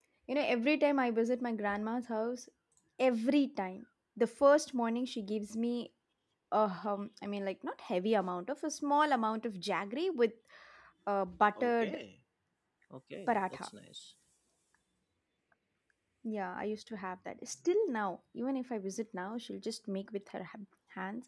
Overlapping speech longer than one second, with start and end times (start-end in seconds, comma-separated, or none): none